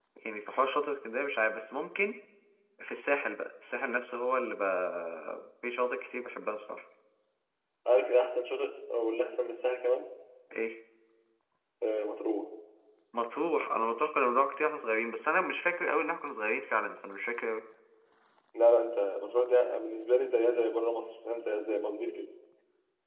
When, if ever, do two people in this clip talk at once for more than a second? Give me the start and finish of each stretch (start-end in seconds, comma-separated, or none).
none